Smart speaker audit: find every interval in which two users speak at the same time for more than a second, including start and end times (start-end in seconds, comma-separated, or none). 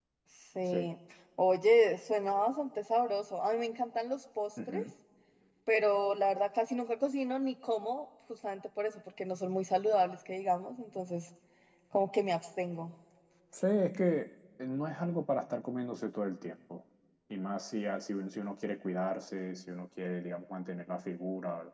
none